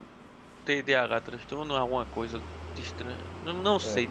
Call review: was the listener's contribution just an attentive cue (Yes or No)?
Yes